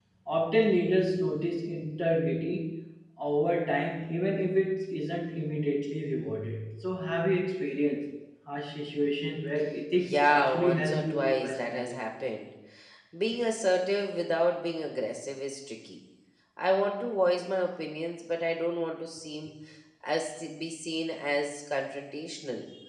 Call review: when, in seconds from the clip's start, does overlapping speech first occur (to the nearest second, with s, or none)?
10 s